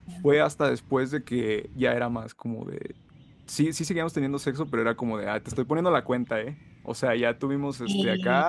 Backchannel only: Yes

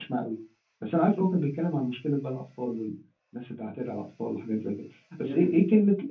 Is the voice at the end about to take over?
No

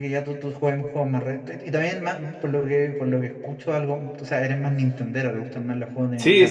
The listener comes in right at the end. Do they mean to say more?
Yes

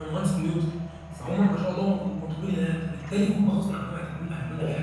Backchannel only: No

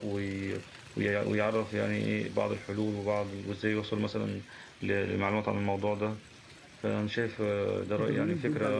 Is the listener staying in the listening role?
No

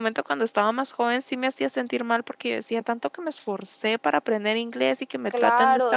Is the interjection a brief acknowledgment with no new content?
No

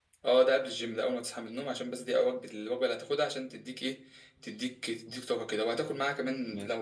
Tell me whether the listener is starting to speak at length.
No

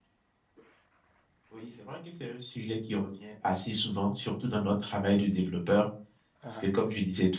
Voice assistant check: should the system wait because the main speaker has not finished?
Yes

